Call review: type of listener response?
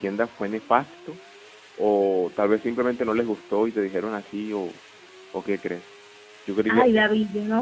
taking over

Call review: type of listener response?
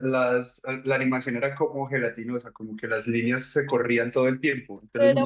taking over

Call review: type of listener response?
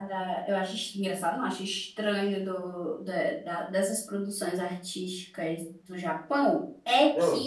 listening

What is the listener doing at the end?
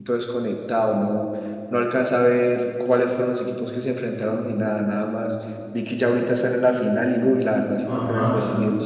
taking over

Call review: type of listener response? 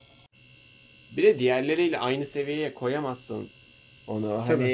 listening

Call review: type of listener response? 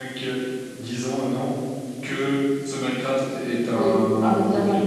taking over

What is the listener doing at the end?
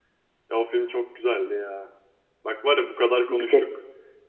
listening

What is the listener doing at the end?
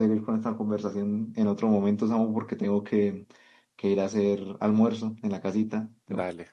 taking over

